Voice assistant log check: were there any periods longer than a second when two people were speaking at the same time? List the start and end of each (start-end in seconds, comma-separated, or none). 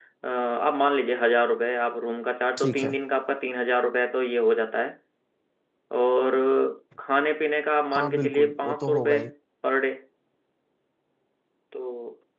8.0-9.2